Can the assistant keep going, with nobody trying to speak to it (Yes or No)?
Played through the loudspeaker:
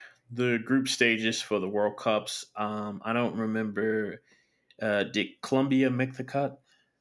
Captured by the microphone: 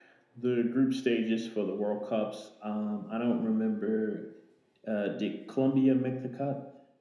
Yes